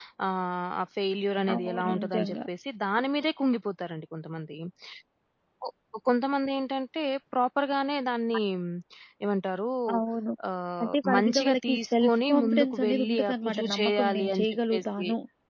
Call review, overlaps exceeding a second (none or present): present